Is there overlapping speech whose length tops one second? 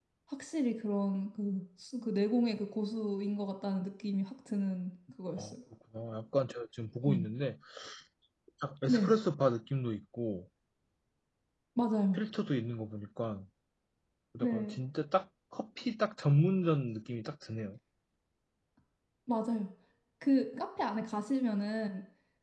No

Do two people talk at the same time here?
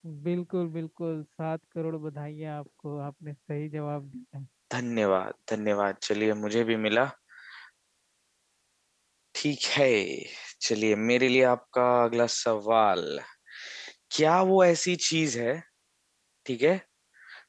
No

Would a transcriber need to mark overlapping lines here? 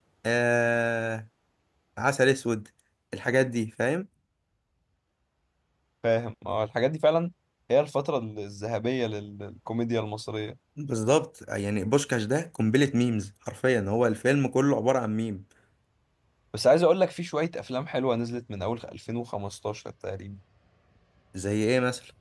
No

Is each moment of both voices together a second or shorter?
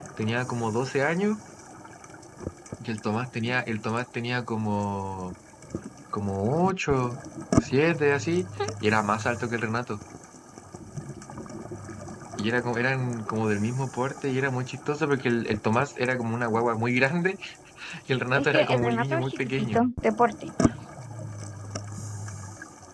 No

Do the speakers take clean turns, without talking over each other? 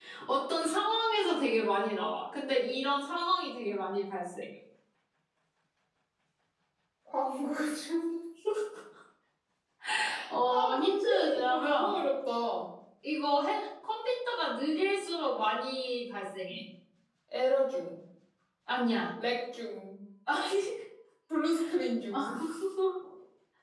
No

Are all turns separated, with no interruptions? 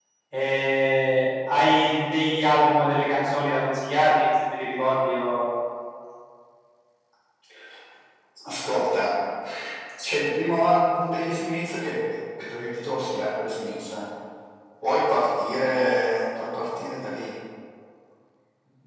Yes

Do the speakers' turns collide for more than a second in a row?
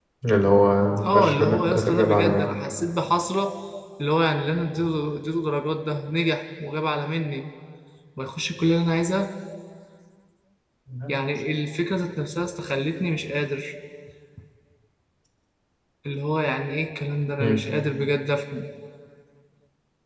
Yes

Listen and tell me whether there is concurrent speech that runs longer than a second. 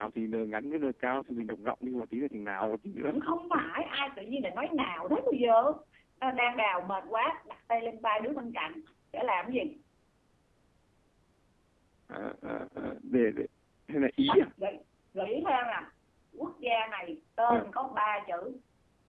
No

